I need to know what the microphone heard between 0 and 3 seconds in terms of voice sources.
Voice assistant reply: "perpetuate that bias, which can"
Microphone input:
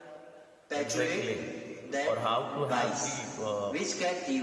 both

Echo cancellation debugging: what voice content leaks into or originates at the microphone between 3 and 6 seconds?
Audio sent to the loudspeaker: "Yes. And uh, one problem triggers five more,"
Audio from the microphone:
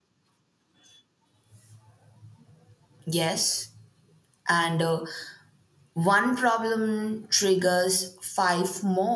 echo only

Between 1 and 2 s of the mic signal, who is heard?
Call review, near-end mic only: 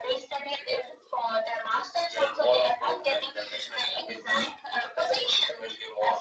echo only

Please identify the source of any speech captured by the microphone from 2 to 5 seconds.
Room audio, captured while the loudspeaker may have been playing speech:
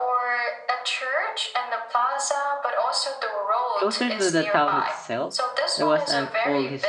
both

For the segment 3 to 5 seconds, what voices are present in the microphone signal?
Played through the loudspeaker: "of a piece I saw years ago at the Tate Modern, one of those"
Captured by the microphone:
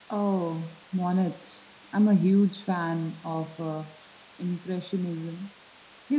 user only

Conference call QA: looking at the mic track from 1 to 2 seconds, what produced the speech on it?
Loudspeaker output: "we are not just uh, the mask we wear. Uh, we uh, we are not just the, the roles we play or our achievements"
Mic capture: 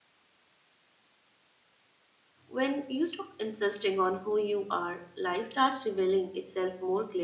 neither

